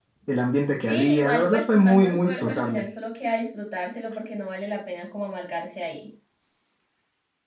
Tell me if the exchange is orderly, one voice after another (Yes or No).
No